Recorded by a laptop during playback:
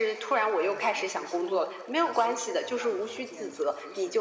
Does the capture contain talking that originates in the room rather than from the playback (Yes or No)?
Yes